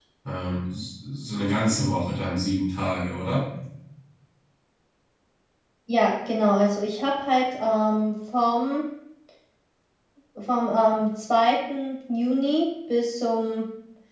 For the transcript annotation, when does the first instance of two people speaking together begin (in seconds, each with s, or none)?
none